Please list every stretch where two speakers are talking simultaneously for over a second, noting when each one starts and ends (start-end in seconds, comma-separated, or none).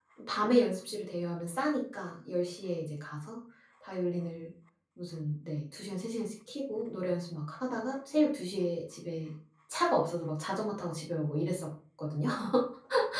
none